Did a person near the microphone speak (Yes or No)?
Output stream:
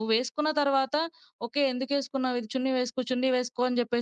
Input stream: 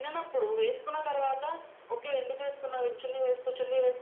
No